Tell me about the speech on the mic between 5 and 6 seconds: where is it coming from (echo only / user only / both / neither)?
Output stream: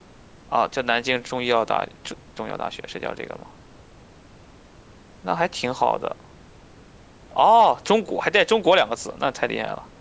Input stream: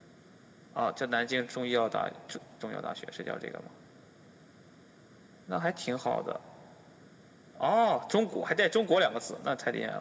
echo only